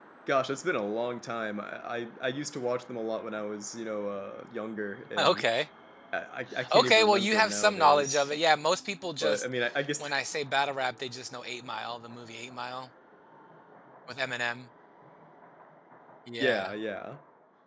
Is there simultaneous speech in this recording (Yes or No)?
Yes